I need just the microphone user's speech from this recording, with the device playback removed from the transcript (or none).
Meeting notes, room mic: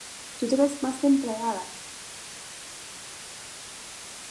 Tú te ves más de empleada